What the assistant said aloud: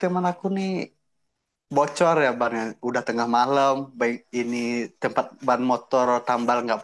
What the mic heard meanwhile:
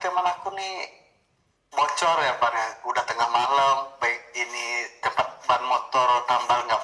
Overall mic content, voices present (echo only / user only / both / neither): echo only